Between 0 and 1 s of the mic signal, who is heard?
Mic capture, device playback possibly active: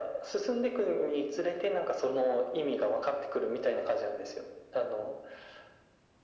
echo only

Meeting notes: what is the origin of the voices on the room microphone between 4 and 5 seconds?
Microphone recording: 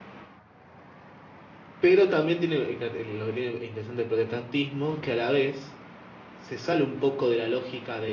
user only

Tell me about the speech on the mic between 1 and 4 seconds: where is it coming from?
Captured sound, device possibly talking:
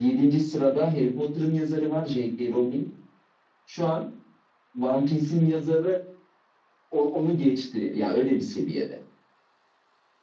echo only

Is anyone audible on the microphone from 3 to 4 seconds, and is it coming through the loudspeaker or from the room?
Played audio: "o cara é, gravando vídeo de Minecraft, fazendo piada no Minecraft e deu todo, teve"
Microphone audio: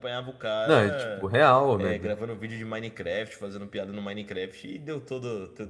echo only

